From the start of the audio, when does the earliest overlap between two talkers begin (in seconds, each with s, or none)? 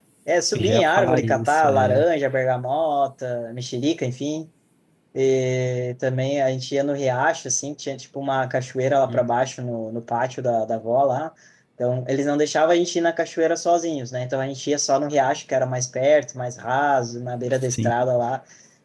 0.5 s